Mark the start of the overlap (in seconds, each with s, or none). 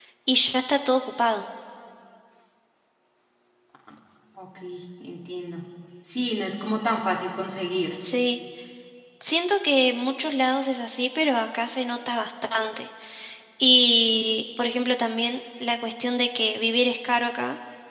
none